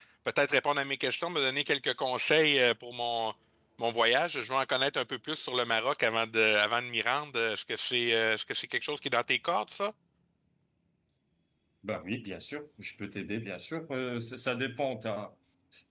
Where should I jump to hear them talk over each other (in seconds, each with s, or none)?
none